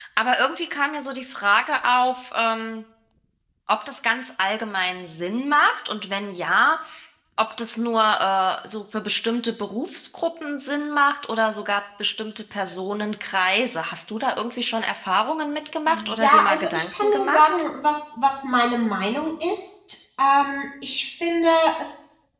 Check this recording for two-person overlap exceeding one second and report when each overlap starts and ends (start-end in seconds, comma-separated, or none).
15.9-17.5